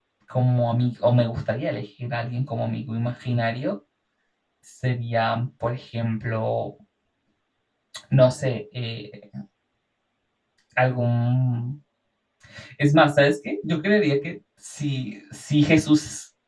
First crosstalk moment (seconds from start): none

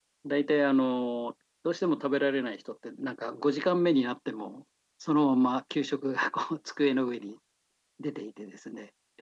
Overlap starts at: none

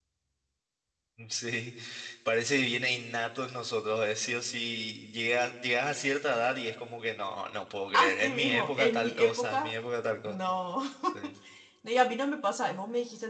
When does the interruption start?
7.9 s

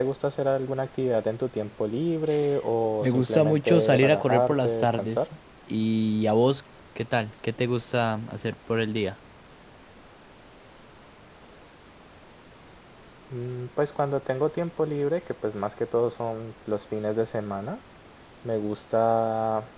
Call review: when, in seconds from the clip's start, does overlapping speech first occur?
3.0 s

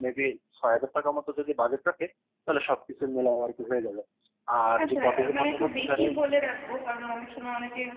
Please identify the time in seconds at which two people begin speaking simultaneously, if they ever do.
4.8 s

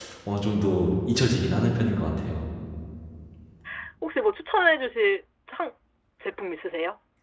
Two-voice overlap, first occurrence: none

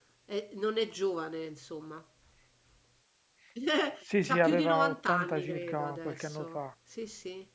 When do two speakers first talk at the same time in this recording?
4.2 s

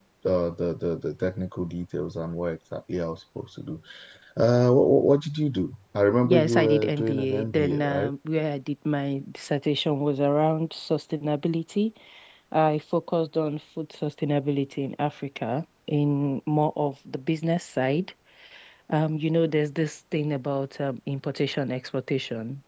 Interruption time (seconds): 6.2 s

